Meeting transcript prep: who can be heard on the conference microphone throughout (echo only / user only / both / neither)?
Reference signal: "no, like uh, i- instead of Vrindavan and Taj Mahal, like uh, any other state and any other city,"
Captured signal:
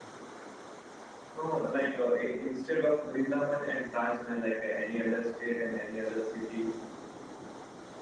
echo only